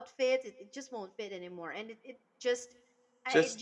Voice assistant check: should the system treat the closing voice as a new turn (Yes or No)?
No